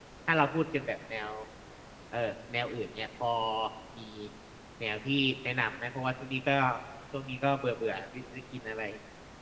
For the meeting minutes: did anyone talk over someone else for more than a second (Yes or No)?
No